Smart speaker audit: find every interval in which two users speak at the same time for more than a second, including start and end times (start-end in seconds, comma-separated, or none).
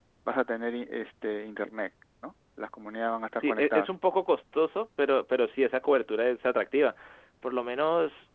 none